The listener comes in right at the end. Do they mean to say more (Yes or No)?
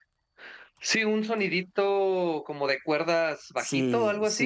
Yes